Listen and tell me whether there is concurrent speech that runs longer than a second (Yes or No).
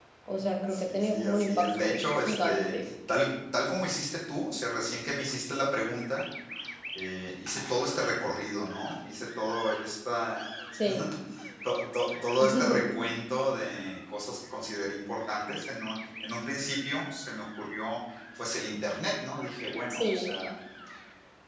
Yes